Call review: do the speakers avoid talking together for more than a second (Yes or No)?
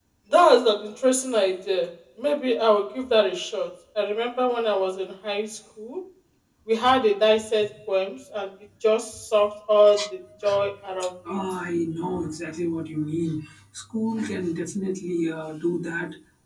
Yes